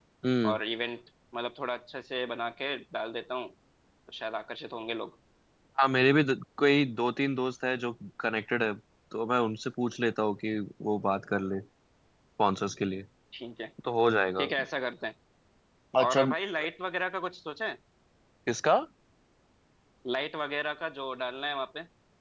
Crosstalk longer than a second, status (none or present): none